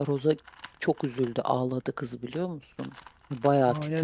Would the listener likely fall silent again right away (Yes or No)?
No